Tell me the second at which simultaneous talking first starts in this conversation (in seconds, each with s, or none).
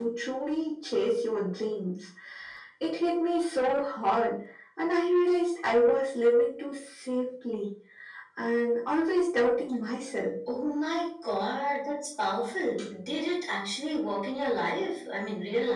none